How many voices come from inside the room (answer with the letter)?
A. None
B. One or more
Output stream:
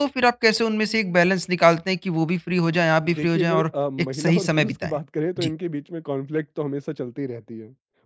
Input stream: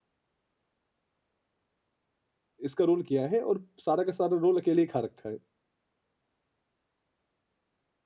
B